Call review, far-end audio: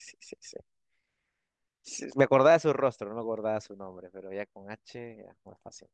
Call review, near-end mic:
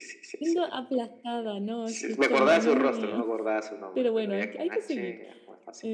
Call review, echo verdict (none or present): present